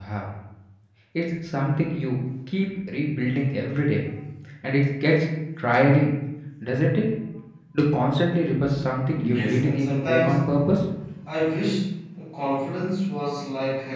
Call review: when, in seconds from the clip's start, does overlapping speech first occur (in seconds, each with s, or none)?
9.1 s